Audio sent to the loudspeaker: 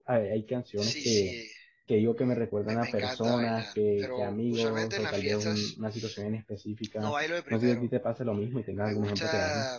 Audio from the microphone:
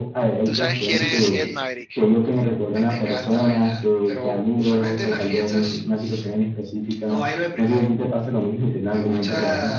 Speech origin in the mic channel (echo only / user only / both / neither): both